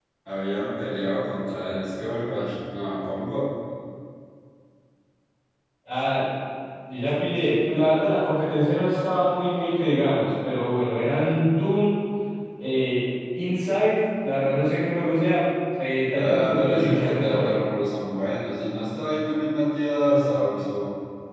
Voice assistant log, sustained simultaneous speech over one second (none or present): present